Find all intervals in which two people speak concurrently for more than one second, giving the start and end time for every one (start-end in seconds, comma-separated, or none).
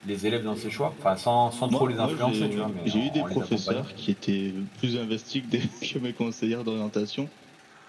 1.7-3.9